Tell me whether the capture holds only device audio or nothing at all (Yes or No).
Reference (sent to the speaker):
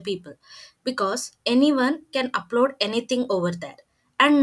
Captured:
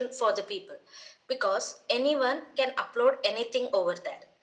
Yes